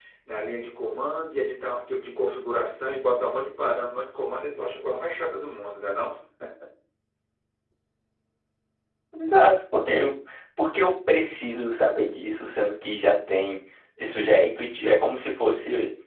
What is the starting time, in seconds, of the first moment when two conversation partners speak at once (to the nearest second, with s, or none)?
none